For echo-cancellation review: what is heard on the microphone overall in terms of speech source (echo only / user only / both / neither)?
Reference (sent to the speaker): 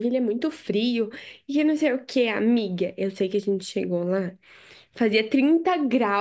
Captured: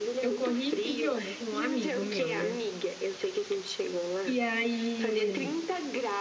both